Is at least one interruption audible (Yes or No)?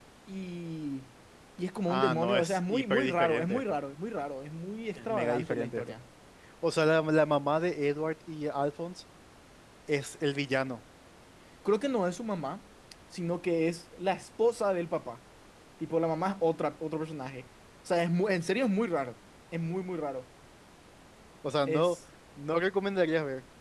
Yes